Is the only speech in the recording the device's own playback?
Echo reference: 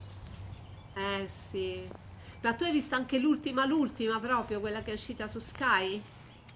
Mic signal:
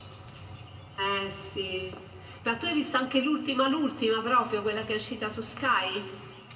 Yes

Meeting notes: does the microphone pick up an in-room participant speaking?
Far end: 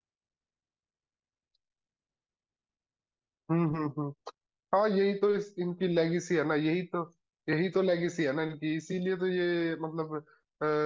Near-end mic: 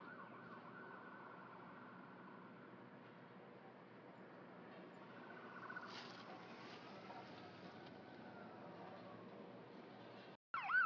No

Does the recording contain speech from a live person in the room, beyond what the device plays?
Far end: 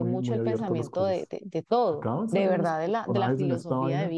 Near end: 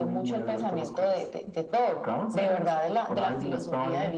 No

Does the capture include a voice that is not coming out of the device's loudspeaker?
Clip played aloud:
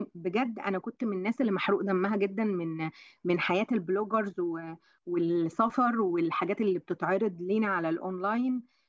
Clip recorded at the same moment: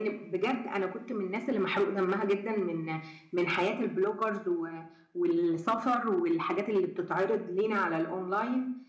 No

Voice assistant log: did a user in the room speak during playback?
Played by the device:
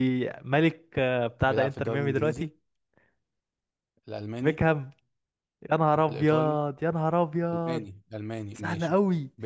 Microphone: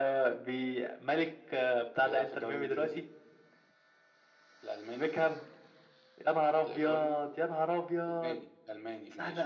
No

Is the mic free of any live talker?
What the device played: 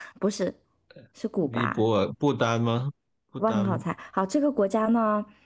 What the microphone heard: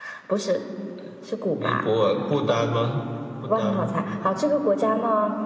Yes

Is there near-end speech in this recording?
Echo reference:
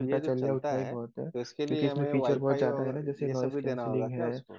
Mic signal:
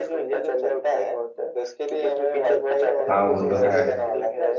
Yes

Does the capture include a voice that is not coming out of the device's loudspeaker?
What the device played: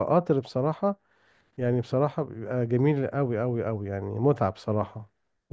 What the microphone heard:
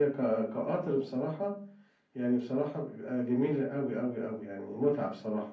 No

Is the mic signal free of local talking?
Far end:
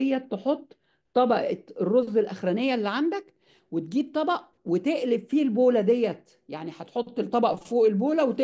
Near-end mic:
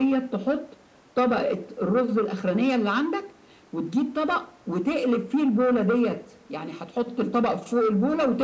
Yes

